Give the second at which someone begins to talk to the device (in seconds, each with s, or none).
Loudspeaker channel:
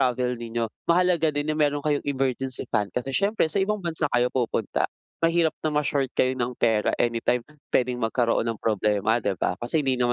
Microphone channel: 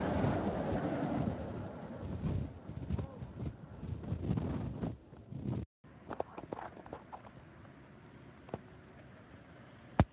none